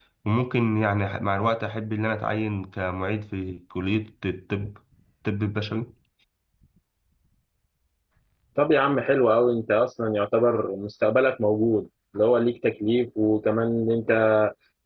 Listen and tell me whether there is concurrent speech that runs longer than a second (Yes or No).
No